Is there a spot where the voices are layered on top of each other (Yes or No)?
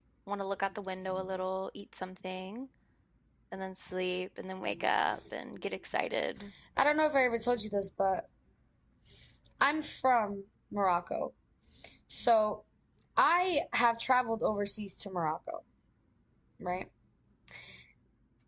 No